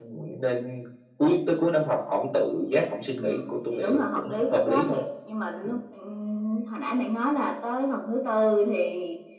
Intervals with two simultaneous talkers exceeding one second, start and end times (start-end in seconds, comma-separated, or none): 3.2-5.0